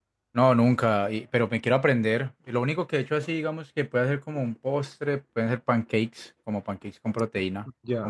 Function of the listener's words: taking over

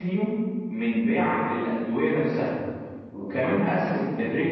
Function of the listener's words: listening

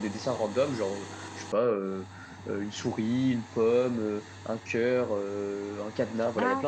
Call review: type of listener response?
taking over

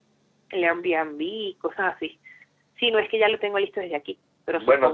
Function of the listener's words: taking over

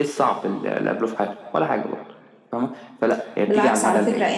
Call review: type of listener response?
taking over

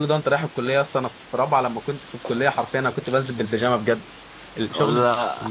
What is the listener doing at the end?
listening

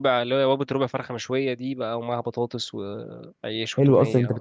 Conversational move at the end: taking over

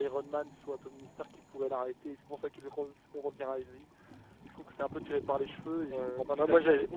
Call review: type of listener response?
taking over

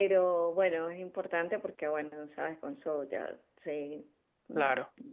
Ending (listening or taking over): listening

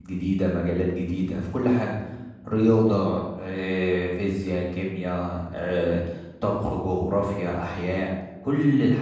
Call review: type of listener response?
taking over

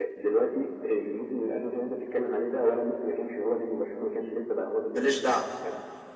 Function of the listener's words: listening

